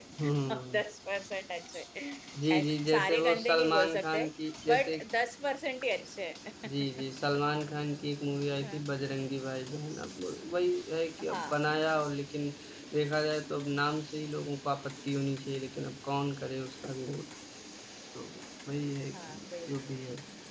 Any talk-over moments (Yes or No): Yes